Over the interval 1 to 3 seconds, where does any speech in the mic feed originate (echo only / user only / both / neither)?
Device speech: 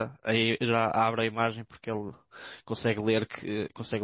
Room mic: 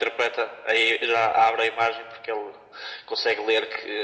echo only